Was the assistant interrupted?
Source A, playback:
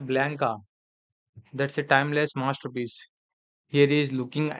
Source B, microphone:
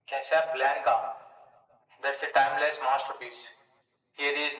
No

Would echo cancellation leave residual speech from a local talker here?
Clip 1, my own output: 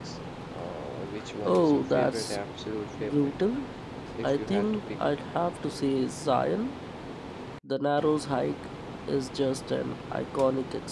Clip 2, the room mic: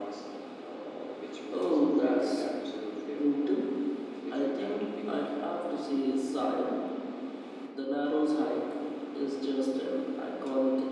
No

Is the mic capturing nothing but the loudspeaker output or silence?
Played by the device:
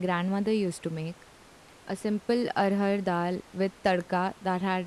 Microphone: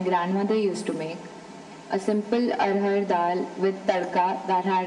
Yes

